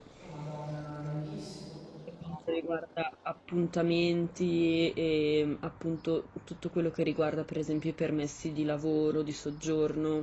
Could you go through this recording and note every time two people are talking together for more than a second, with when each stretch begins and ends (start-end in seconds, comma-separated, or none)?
none